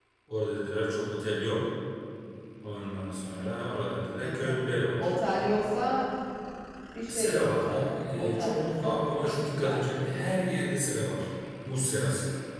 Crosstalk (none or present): present